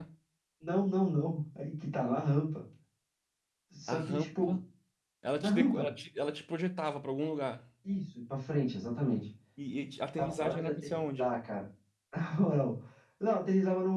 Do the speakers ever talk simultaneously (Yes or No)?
Yes